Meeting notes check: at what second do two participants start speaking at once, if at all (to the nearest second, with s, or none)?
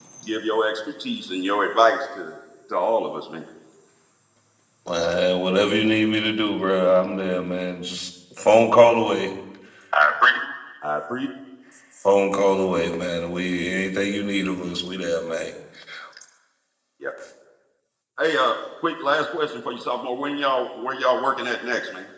none